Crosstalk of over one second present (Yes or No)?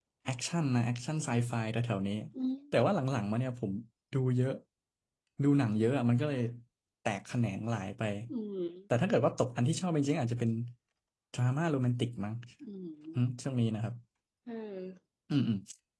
No